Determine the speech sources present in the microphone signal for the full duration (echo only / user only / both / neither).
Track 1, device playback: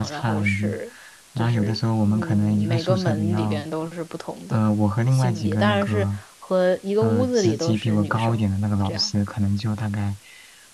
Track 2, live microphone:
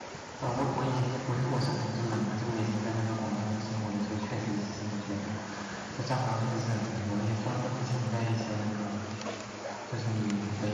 user only